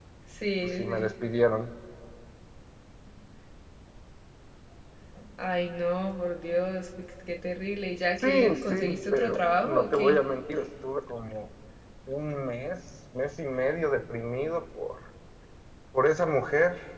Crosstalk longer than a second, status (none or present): present